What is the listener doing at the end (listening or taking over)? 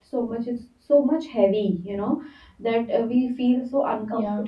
listening